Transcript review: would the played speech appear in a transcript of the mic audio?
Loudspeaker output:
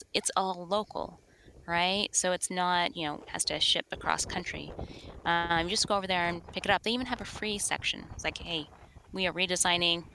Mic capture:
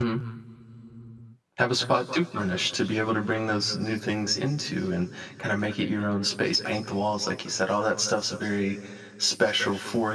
No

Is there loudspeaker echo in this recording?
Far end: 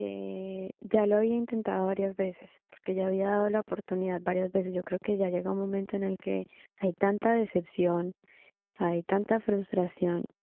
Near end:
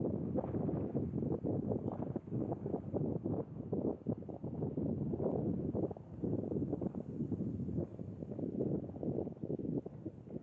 No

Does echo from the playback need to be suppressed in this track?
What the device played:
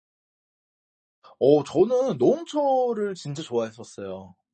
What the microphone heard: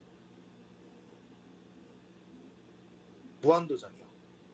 No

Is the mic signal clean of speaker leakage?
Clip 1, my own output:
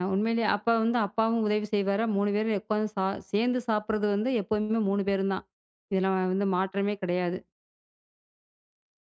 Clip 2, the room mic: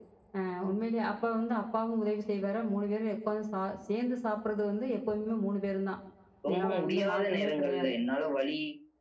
No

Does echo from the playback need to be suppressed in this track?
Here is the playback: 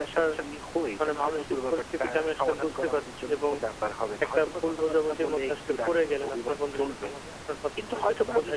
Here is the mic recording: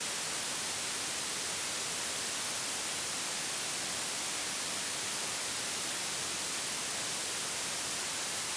No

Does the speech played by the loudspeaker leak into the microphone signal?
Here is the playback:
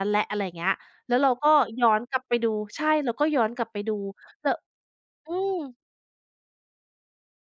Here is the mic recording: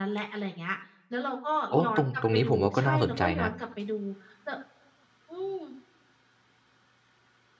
Yes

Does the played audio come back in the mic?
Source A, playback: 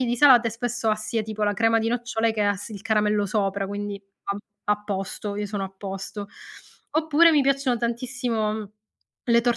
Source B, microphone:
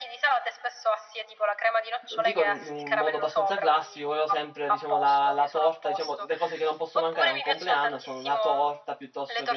Yes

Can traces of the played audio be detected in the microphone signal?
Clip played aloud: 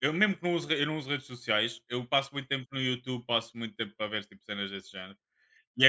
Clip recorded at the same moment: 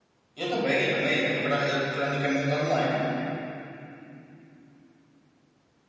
No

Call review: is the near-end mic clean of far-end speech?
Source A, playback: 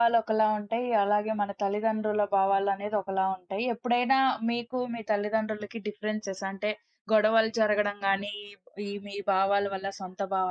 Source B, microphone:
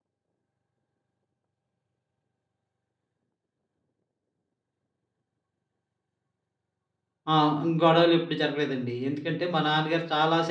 Yes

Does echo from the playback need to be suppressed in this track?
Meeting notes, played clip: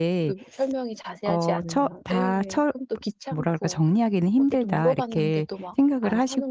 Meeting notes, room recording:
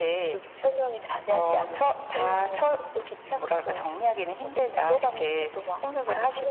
Yes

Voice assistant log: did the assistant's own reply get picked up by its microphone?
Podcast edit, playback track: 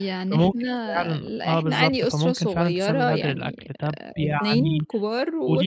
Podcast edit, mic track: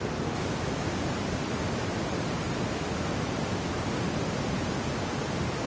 No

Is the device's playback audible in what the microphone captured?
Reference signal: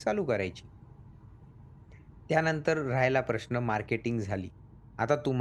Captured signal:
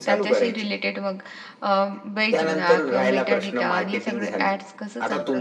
Yes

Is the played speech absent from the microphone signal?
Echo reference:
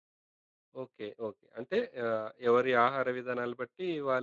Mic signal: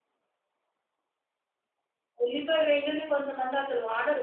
Yes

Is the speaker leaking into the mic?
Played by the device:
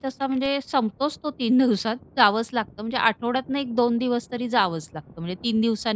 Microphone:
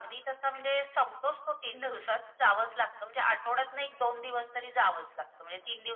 Yes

